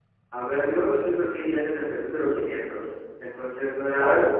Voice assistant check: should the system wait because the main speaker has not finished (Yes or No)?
Yes